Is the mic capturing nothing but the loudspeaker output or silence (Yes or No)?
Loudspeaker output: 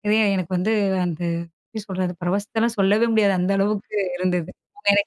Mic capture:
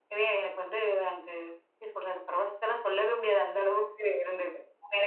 Yes